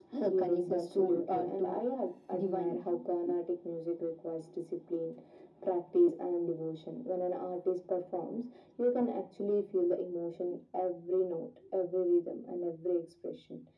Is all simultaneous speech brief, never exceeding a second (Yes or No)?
No